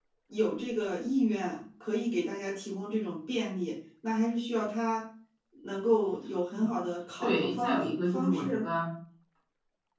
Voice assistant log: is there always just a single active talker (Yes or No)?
No